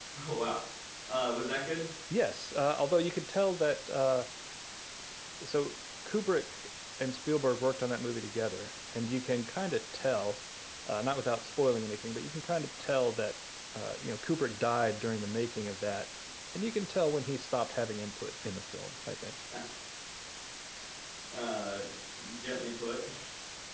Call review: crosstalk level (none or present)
none